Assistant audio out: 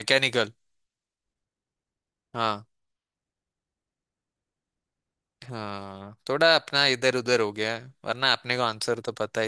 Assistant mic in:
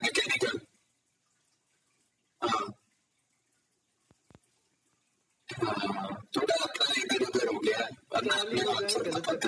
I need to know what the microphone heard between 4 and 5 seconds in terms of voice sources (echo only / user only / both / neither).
neither